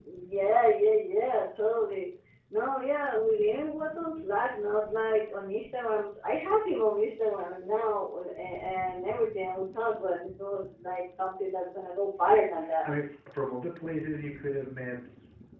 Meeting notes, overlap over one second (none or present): none